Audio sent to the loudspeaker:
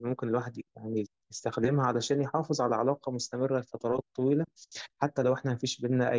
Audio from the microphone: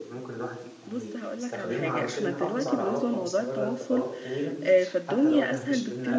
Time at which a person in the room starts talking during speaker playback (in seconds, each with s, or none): 0.8 s